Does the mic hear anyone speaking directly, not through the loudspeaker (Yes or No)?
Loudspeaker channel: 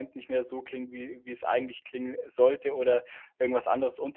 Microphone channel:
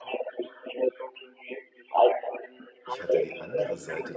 Yes